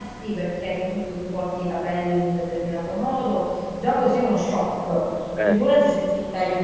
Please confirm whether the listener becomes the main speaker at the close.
No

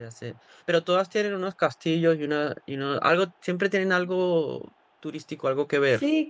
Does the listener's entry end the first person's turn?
Yes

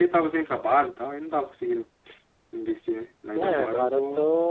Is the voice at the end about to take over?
Yes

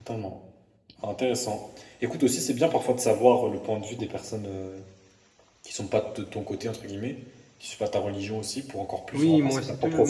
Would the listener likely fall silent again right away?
No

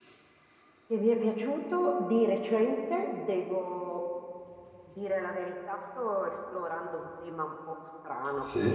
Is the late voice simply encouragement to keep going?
Yes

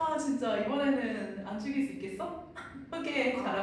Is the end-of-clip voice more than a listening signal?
Yes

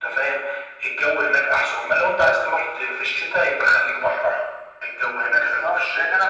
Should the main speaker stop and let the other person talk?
Yes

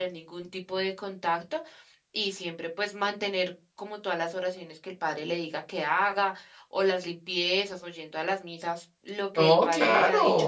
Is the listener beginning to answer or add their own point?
Yes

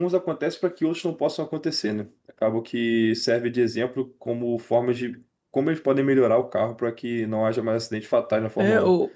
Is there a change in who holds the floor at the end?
Yes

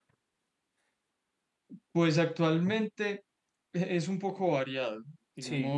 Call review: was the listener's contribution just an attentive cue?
Yes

